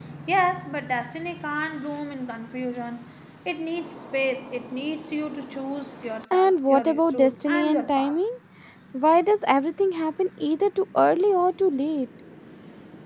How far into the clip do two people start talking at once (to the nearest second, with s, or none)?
6 s